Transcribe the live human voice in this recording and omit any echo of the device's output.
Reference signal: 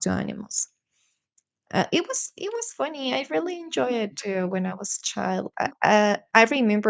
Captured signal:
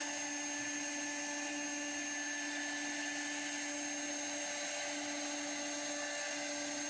none

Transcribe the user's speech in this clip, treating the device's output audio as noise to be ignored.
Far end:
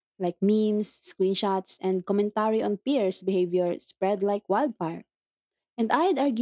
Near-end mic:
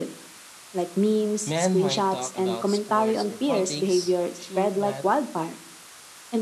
Men might talk about sports or politics, sure, but

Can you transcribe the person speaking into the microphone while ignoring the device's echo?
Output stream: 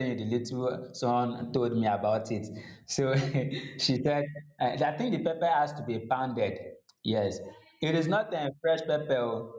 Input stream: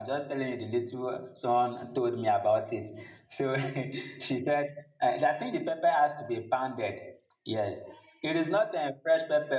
none

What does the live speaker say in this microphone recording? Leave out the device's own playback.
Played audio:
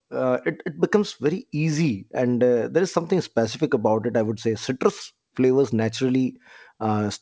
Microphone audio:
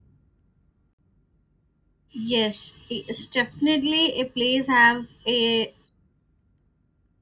Yes, it's definitely a place have a

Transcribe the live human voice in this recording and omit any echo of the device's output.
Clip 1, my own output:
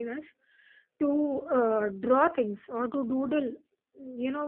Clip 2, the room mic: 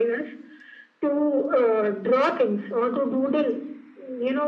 none

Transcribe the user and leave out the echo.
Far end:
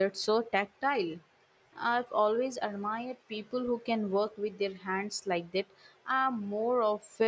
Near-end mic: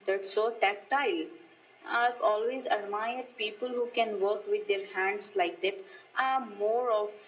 none

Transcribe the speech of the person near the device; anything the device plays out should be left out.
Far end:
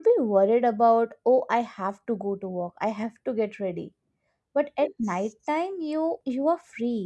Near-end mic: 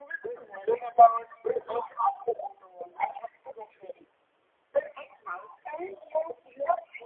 none

